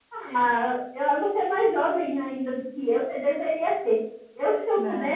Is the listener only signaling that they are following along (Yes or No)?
Yes